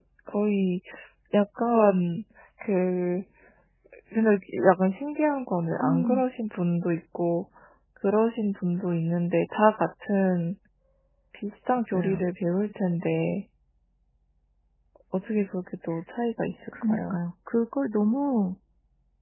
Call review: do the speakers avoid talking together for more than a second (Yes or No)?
Yes